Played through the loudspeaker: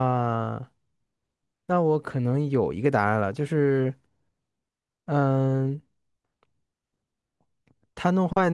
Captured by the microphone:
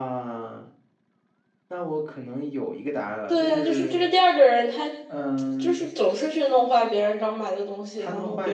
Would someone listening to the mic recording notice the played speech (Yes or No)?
Yes